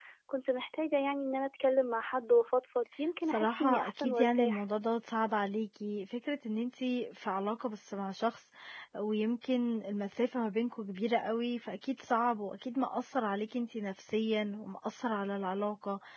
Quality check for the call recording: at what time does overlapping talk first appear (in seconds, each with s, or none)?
3.3 s